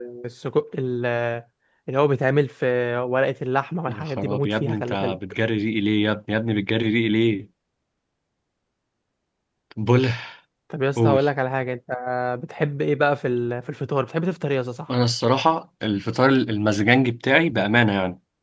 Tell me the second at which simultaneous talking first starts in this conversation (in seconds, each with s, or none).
3.9 s